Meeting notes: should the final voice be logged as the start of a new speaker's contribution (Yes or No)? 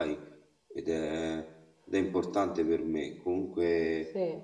No